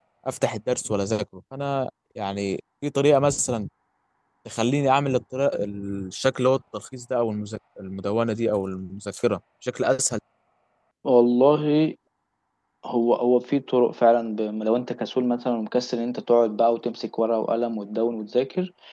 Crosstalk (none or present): none